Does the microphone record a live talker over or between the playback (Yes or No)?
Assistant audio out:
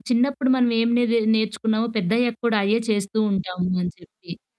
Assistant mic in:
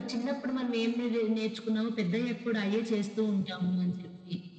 No